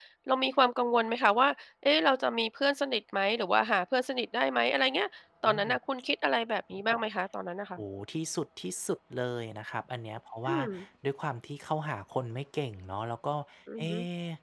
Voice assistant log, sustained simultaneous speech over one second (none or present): none